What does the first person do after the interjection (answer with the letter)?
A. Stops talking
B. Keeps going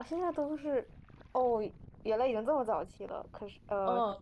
A